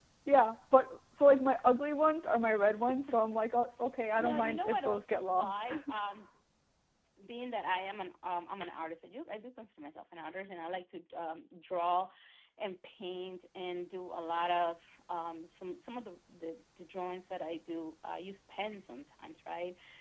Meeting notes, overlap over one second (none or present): present